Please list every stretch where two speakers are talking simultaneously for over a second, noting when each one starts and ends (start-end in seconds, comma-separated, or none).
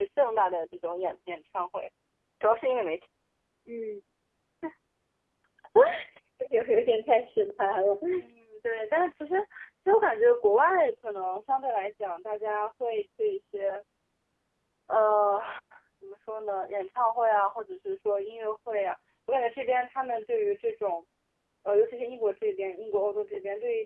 none